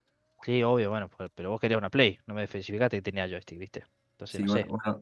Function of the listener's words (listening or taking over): taking over